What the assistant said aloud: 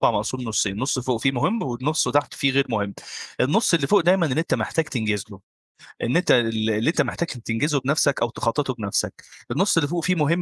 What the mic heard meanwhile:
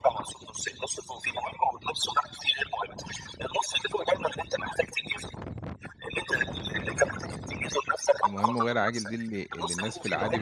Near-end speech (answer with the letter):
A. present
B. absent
A